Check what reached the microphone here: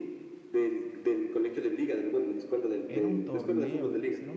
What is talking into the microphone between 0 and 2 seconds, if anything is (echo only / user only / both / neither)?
echo only